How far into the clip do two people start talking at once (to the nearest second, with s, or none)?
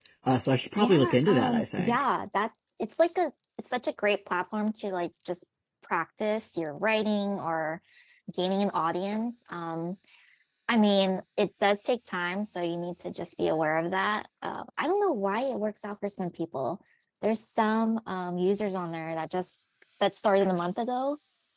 1 s